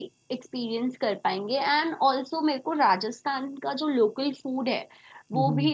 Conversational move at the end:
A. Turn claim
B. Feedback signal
B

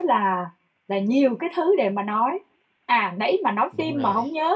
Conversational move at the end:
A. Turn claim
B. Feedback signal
B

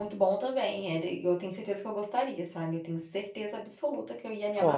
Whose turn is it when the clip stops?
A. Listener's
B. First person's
A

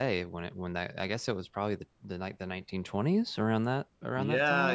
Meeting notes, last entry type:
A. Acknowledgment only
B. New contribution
B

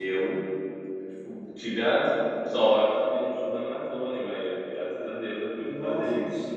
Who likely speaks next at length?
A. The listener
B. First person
A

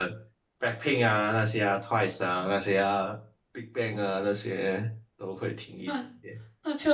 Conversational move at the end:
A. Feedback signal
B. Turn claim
B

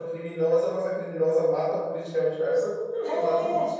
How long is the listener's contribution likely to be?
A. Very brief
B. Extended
B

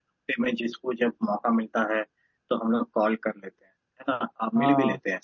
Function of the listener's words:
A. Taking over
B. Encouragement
B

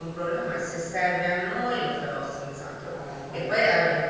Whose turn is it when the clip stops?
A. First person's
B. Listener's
A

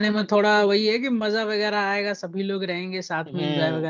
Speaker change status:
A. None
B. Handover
B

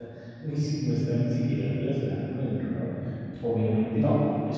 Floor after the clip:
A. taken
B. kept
B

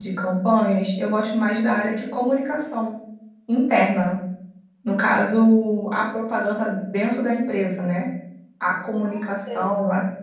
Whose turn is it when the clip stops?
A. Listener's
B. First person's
B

